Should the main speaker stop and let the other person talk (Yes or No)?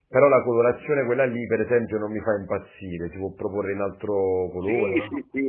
Yes